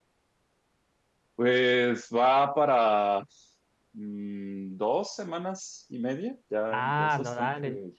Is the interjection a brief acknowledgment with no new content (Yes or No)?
No